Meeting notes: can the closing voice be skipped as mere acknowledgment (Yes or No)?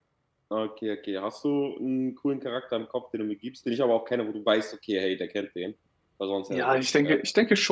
No